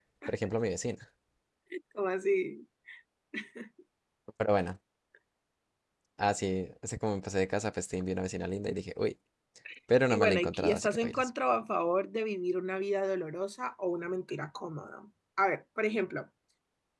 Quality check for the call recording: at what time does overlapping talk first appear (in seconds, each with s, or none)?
10.1 s